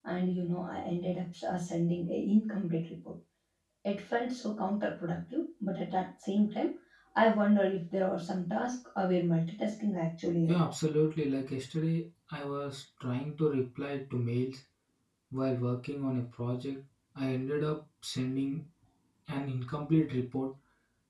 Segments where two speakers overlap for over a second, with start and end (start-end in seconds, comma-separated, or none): none